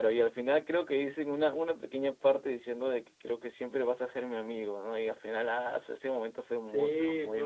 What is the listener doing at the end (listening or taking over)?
taking over